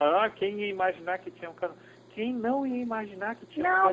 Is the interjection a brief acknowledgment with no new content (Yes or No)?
No